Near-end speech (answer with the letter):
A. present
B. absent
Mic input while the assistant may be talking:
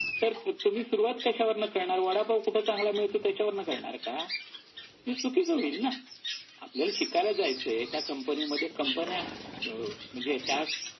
B